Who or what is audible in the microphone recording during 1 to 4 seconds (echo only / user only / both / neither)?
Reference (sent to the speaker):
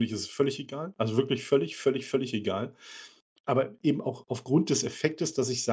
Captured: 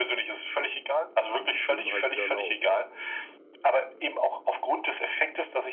both